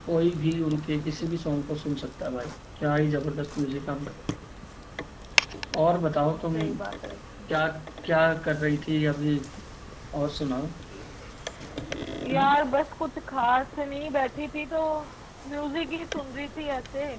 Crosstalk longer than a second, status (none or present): none